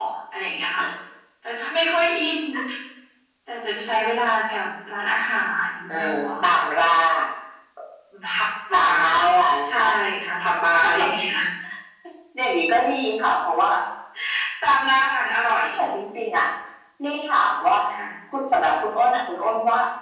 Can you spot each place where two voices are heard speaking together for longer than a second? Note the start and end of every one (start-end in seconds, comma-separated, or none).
none